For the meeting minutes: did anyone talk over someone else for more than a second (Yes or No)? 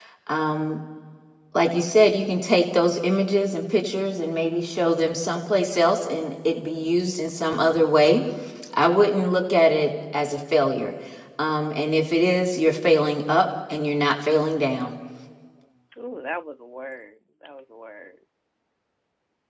No